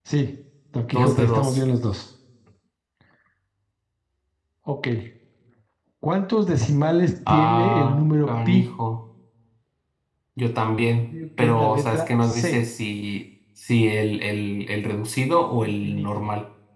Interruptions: present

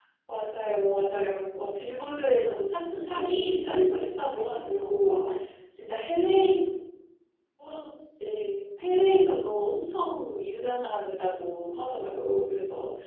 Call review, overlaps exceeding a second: present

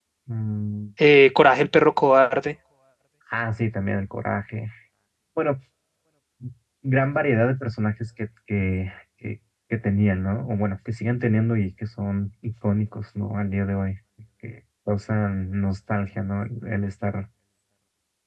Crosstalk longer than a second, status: none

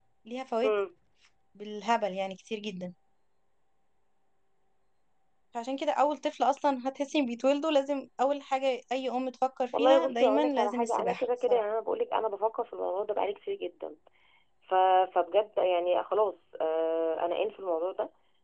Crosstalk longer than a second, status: present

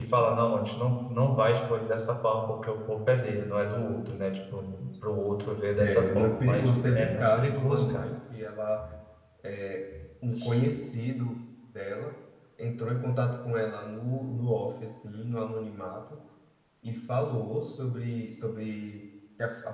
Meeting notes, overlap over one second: present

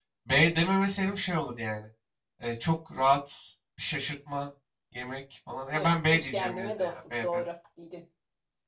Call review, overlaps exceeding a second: present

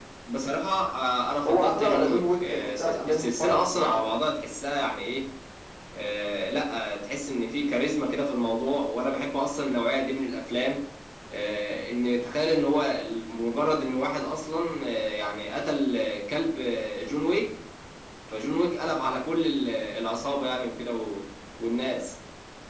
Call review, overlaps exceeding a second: present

